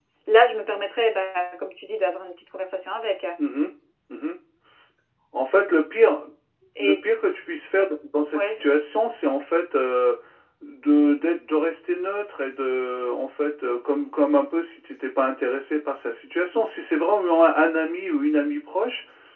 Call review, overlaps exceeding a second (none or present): none